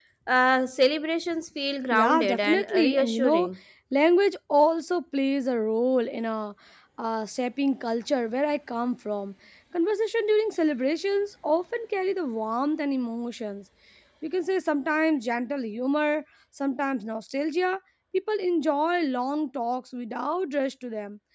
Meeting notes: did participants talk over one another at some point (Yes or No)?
Yes